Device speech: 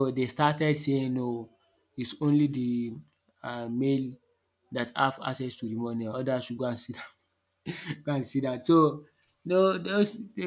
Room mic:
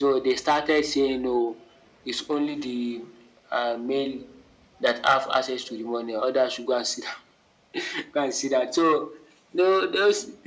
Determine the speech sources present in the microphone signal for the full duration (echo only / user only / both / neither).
echo only